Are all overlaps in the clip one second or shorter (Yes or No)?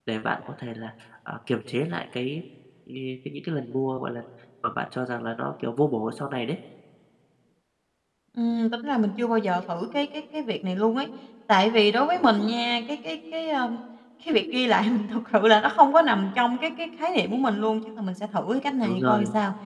Yes